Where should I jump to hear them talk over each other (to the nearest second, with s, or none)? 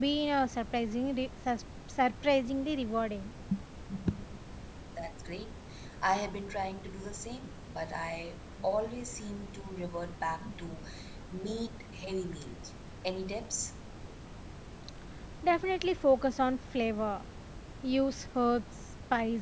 none